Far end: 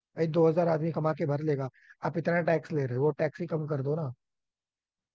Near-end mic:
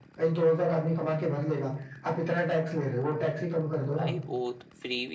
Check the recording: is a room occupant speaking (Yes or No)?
Yes